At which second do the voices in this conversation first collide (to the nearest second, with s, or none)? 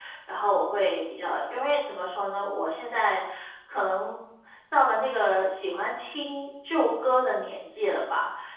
none